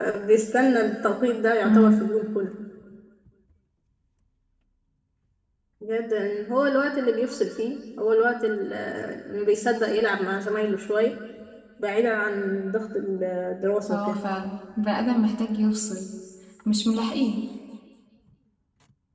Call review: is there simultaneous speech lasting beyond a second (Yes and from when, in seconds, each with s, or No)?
No